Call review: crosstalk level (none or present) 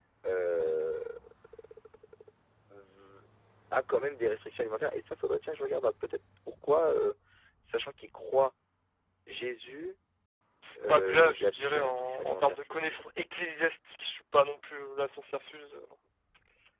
present